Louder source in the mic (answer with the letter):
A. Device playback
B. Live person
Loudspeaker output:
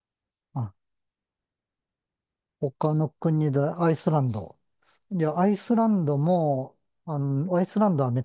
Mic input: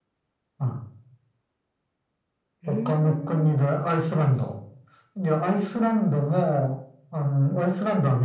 A